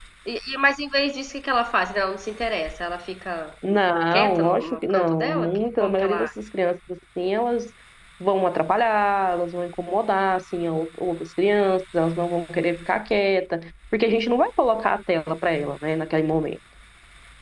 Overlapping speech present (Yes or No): Yes